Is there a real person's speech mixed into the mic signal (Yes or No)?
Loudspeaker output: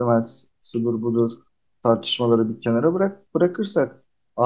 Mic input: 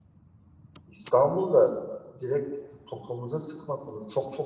Yes